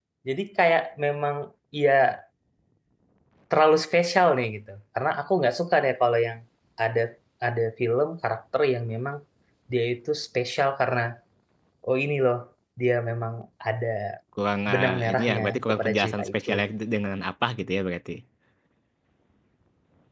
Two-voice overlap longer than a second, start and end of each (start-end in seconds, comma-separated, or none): 14.7-16.5